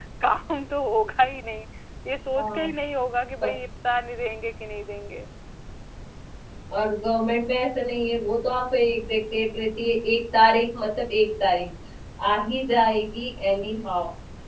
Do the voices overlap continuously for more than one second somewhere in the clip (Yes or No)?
No